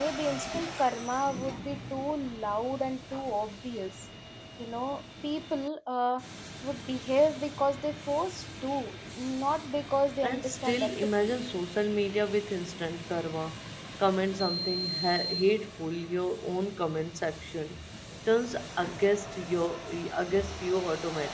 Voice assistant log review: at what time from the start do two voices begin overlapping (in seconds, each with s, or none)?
10.2 s